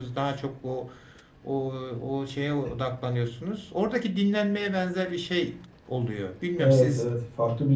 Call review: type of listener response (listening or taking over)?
taking over